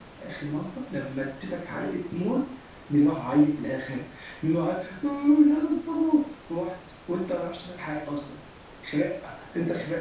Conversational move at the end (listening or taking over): taking over